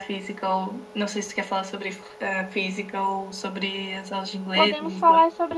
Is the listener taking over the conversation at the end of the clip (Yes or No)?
Yes